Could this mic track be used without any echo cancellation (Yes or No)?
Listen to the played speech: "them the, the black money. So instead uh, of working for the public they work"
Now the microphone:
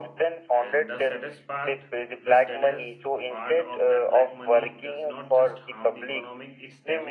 No